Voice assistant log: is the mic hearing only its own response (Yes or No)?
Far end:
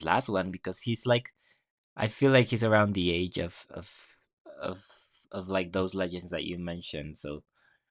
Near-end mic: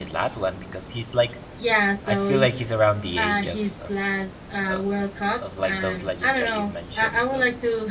No